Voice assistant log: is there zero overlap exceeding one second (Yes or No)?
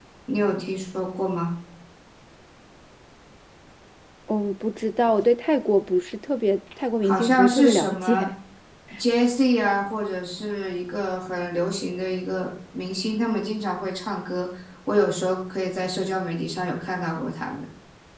No